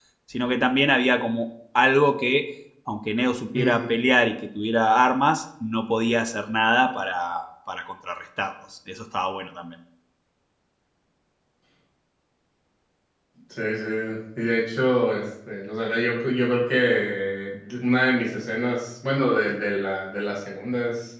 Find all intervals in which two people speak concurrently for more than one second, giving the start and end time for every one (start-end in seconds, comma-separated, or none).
none